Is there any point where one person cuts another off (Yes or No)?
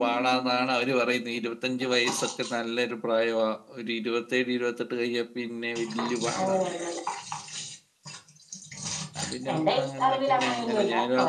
Yes